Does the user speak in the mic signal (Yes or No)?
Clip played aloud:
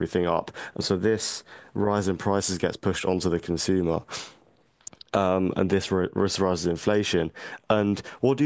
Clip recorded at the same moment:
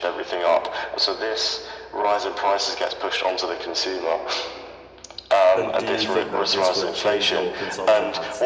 Yes